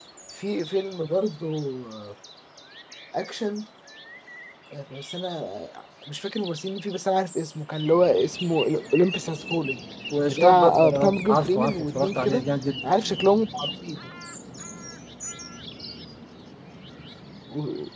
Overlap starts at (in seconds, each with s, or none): 10.4 s